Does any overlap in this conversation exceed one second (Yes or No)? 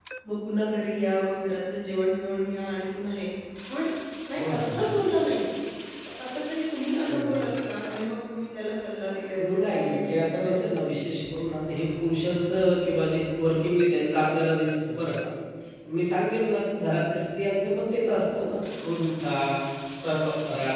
Yes